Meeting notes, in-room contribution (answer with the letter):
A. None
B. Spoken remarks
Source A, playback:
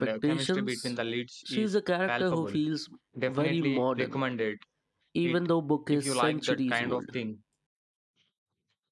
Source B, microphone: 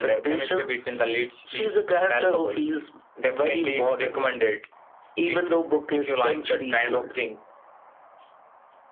A